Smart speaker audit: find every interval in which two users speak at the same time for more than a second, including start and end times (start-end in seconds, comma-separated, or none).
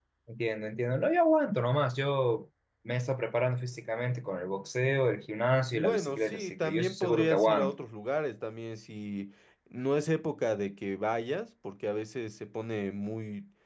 5.7-7.8